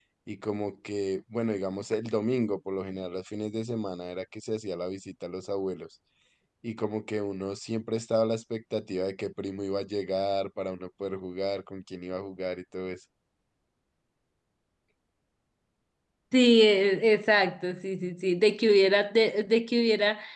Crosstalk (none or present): none